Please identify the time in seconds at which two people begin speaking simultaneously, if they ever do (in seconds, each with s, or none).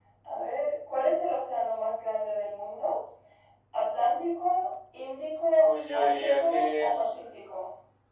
5.6 s